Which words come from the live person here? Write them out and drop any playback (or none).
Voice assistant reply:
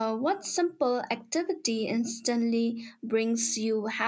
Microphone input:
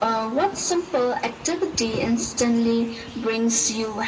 none